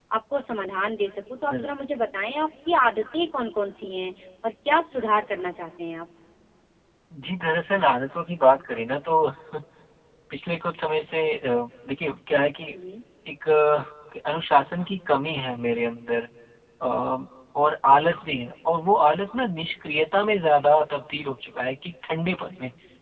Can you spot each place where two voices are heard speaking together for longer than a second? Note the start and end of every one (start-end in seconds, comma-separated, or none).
none